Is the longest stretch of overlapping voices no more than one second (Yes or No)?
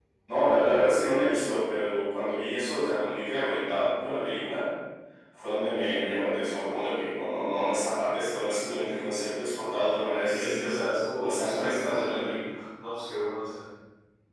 No